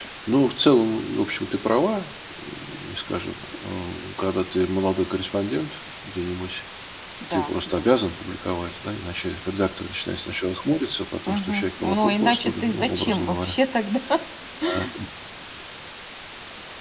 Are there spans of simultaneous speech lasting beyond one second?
Yes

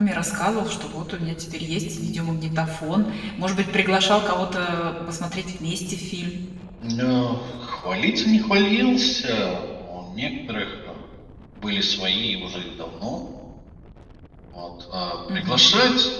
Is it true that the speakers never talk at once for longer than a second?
Yes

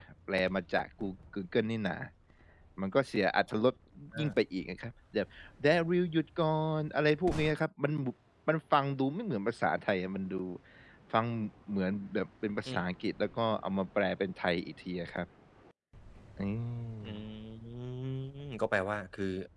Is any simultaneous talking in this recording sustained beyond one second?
No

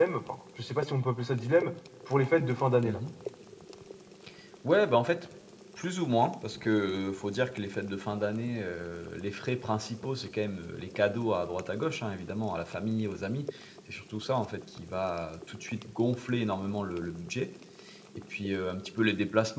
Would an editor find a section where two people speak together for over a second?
No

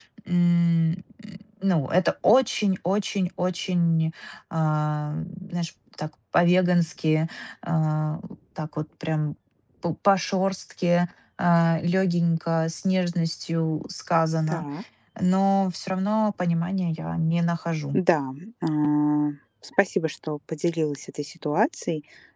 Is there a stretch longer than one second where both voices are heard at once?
No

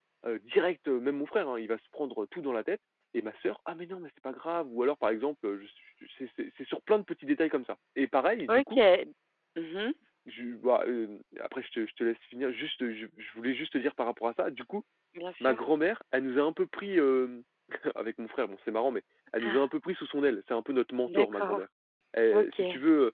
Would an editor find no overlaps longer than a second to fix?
Yes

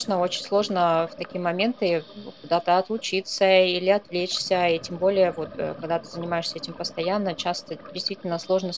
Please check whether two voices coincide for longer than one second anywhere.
No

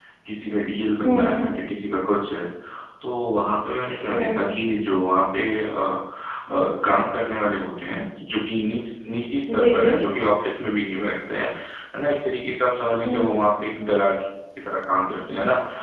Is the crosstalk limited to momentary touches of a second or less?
Yes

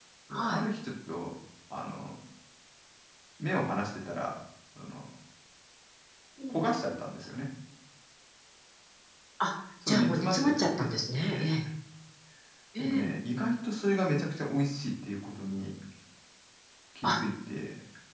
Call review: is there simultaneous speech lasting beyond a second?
Yes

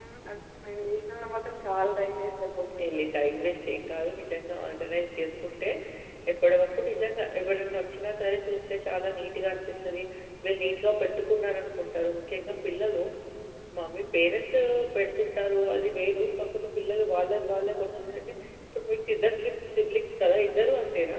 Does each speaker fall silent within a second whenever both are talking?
Yes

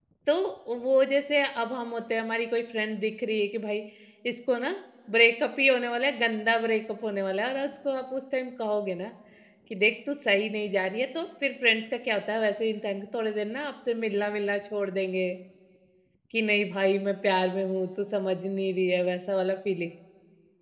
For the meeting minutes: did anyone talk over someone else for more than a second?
No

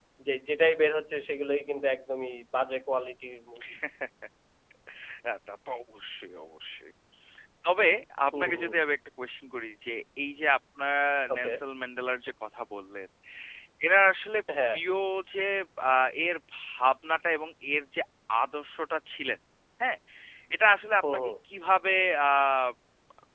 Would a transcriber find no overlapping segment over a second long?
Yes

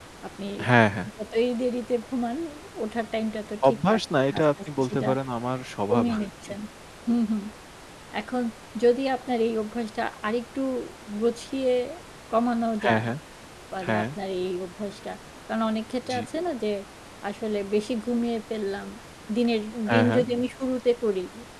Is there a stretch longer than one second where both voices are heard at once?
Yes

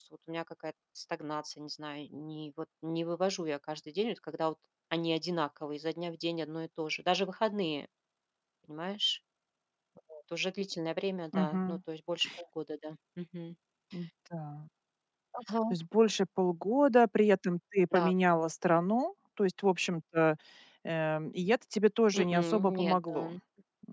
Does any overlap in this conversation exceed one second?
Yes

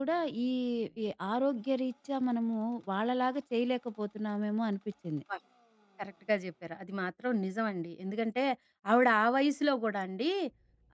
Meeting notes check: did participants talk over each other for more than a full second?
No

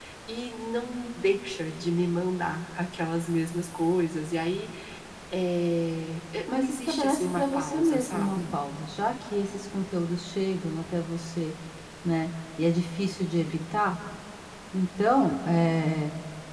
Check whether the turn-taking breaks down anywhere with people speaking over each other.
Yes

